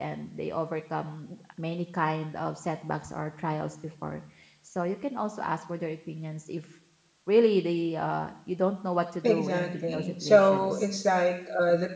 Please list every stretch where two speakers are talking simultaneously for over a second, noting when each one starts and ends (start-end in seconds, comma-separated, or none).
9.2-10.9